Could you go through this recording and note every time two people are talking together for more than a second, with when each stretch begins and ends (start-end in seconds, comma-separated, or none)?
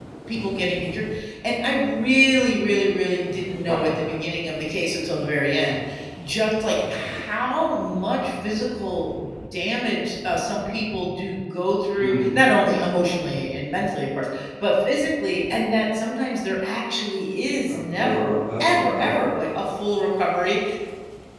17.7-19.2